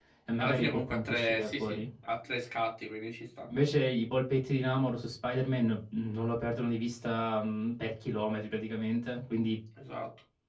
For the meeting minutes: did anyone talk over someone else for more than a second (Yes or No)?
Yes